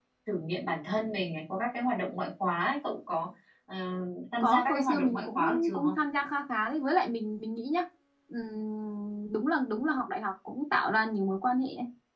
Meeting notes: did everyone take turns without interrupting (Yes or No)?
No